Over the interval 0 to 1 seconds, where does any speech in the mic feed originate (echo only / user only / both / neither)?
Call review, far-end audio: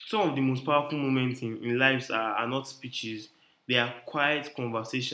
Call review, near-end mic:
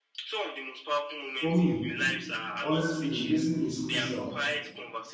echo only